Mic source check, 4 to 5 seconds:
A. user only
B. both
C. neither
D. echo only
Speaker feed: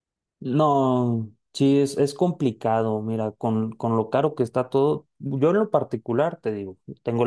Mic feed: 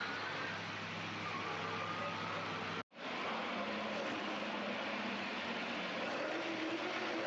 C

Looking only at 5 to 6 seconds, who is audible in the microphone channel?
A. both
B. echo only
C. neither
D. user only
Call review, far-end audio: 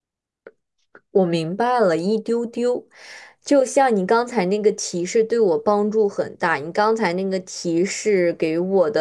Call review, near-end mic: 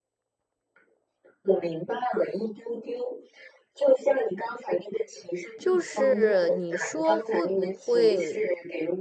A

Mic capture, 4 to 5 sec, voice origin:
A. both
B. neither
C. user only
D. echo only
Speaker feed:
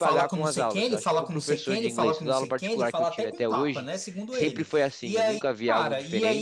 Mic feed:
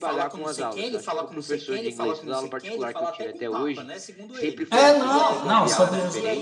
A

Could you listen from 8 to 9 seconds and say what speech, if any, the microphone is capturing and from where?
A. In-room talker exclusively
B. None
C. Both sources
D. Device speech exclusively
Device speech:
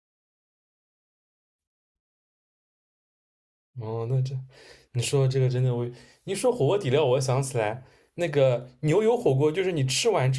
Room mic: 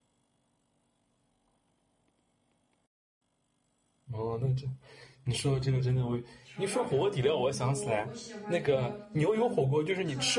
C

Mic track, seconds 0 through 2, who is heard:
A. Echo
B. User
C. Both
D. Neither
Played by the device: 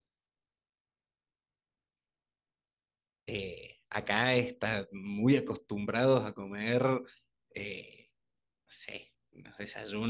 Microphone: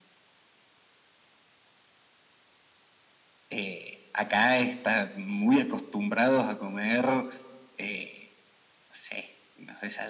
D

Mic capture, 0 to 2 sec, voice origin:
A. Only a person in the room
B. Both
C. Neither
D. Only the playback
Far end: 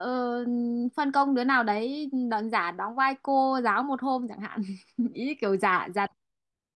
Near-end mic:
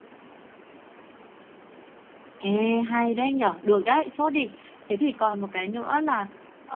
C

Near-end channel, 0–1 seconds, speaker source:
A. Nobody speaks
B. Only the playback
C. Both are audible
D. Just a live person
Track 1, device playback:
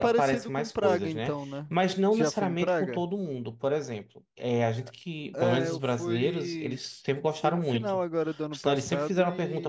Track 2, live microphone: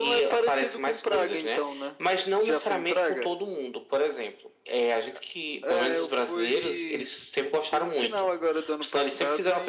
B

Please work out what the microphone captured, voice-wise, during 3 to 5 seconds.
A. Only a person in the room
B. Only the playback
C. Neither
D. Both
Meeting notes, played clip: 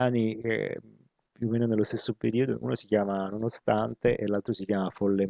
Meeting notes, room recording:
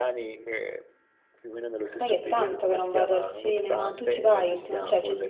D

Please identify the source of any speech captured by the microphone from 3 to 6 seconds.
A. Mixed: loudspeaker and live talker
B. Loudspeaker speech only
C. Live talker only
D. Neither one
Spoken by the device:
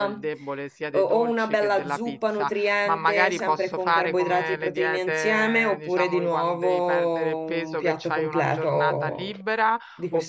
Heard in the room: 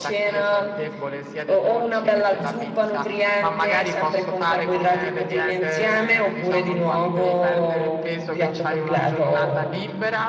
B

